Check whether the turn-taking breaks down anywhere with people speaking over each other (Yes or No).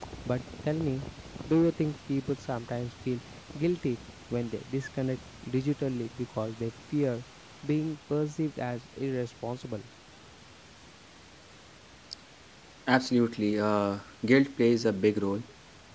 No